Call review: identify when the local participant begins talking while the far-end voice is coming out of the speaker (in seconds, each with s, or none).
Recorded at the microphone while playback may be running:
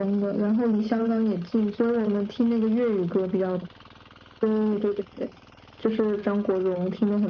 none